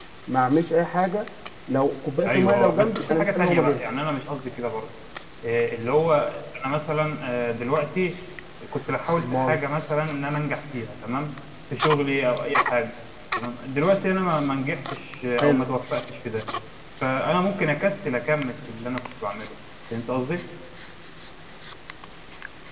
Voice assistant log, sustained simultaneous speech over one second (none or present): present